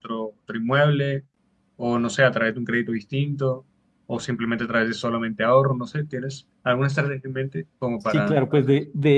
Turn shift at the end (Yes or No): Yes